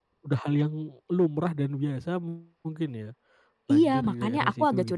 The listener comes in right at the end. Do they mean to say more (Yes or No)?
Yes